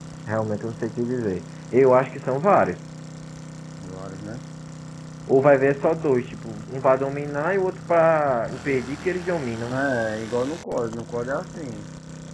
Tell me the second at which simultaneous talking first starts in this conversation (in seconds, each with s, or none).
none